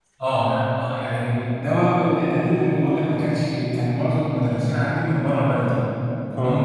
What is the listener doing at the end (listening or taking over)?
listening